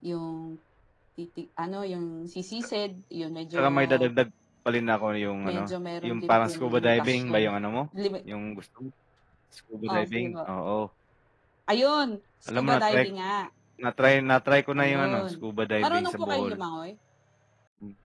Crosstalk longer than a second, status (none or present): present